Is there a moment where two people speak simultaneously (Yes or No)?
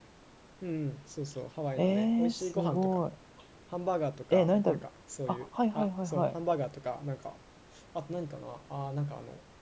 Yes